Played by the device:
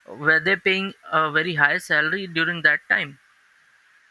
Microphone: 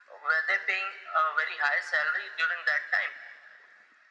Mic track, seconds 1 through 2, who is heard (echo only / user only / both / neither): echo only